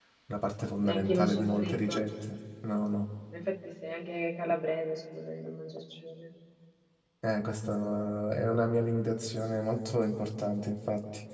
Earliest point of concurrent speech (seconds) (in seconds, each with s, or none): 0.8 s